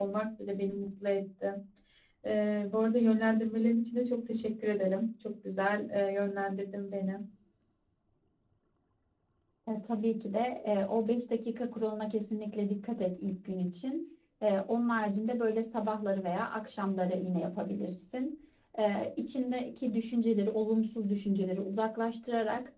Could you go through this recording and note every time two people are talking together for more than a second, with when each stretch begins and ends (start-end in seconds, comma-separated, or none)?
none